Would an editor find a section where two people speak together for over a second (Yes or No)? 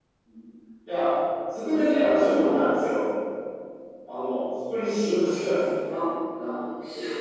No